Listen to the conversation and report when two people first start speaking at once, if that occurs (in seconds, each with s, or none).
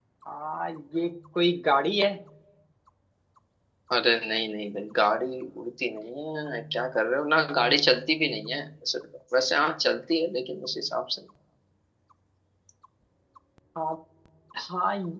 none